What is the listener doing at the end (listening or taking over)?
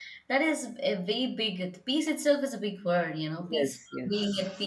listening